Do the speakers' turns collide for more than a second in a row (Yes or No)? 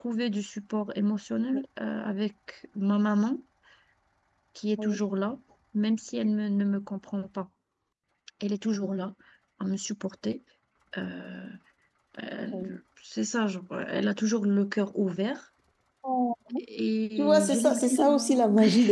Yes